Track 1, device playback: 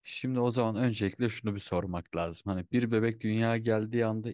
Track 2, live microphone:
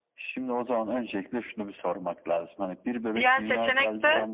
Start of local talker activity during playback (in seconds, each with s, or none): 3.1 s